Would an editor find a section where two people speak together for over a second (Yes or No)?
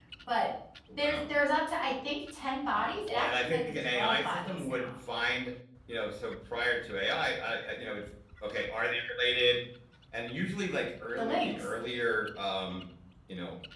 Yes